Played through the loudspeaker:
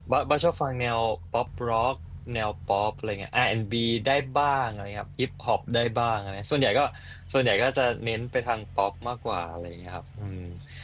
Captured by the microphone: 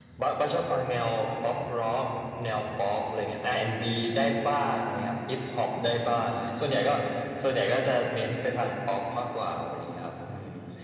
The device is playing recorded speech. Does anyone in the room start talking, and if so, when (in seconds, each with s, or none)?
none